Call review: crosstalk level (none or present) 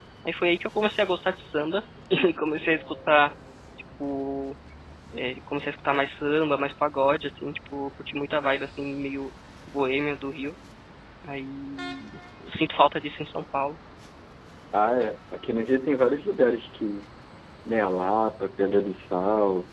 none